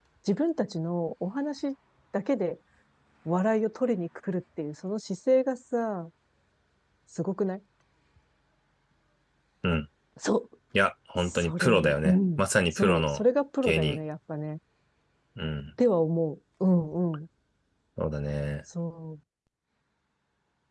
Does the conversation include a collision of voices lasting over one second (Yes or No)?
Yes